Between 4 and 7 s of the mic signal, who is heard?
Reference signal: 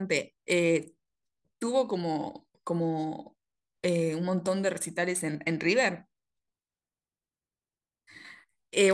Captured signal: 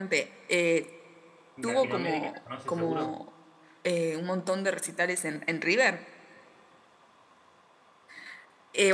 echo only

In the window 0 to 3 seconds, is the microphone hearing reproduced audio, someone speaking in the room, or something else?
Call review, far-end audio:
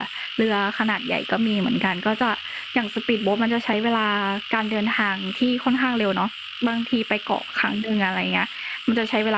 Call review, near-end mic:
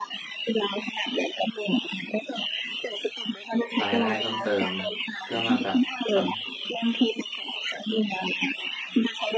echo only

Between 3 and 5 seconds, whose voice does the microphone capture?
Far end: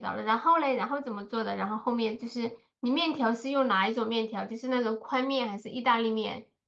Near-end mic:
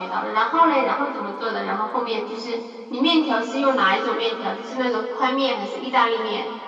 echo only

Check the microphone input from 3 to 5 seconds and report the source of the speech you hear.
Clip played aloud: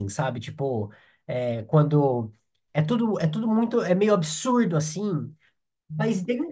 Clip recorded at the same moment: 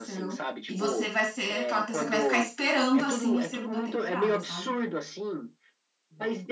both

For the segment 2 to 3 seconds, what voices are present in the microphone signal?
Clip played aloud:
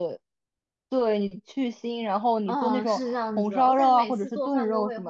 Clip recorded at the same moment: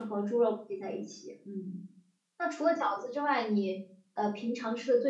user only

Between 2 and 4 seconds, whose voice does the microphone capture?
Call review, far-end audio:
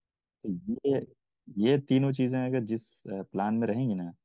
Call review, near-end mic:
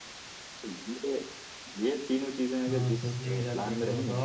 both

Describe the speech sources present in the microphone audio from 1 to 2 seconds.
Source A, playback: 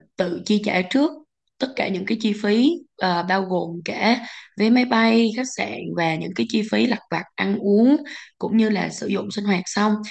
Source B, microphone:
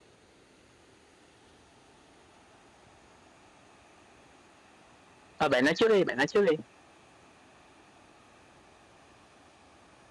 neither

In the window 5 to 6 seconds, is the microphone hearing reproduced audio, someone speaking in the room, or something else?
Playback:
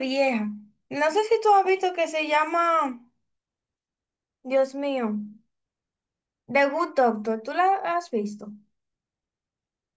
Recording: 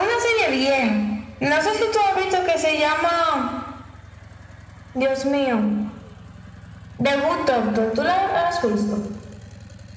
echo only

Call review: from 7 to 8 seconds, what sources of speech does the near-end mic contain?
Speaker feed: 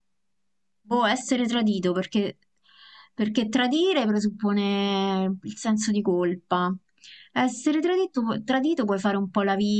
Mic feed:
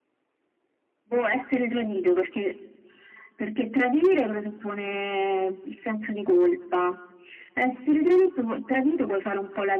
echo only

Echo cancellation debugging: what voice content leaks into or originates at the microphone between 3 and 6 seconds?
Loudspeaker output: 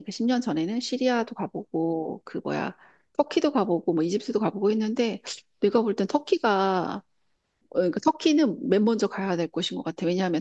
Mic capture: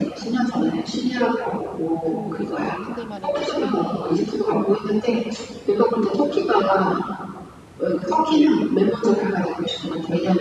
both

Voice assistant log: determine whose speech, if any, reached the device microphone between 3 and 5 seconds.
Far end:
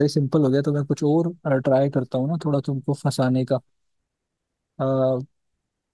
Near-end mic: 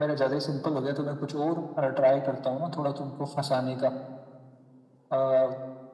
echo only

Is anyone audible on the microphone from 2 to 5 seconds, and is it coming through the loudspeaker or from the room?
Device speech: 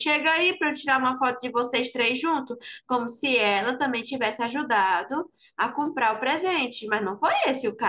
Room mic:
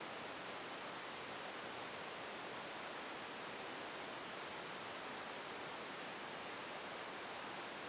neither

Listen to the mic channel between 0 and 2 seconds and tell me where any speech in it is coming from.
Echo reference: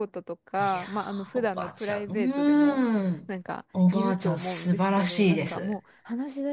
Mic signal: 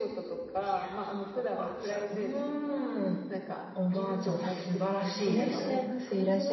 echo only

